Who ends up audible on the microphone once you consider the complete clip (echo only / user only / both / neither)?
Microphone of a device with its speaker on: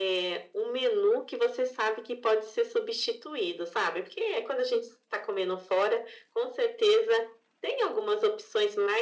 echo only